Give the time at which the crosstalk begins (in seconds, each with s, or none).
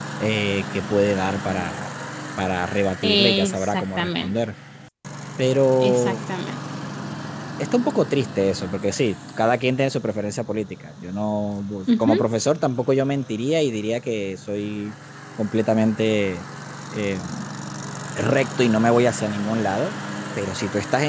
3.0 s